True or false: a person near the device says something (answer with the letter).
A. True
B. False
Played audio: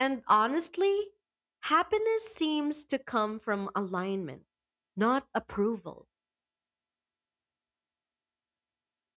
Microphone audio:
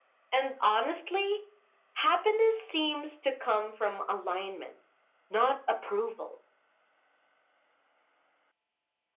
B